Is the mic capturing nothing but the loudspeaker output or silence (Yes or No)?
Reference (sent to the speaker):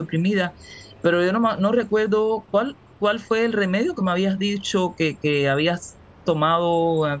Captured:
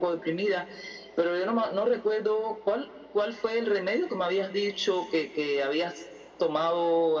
Yes